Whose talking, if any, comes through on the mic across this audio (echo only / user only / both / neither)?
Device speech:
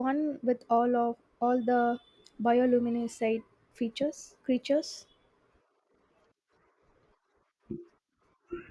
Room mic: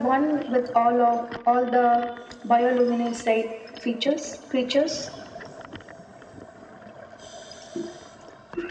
echo only